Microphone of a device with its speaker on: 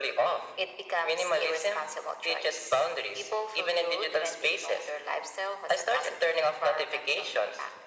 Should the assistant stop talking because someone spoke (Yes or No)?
No